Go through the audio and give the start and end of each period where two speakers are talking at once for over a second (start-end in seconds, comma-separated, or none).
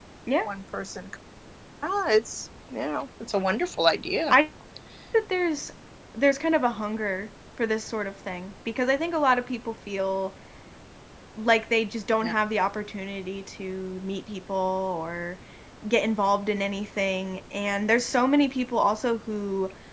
none